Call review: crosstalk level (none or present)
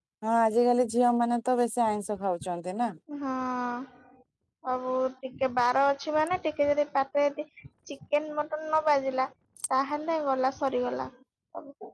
none